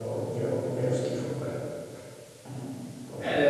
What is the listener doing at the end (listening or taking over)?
taking over